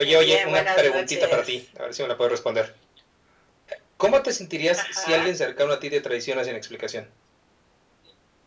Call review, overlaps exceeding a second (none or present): present